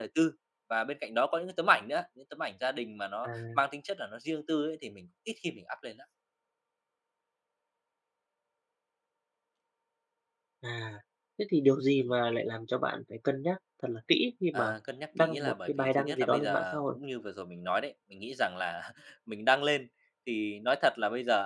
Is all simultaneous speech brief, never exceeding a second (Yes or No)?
No